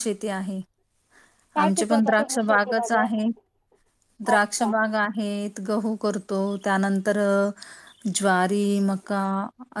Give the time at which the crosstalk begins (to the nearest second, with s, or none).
2 s